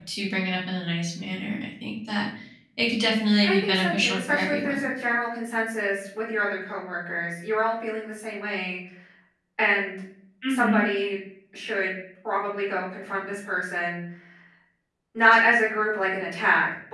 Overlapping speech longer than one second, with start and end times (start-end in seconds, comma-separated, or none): 3.4-4.8